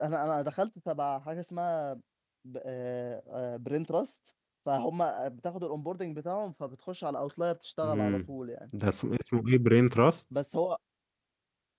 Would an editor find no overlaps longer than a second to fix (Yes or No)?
Yes